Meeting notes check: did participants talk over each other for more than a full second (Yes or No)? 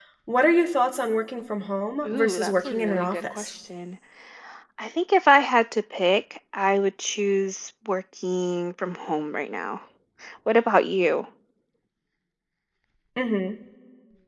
Yes